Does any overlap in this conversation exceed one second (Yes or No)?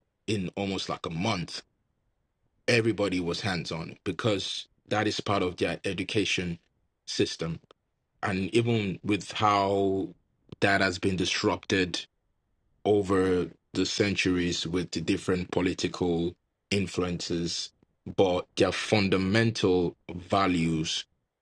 No